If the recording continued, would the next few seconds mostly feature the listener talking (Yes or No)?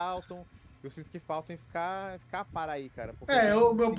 Yes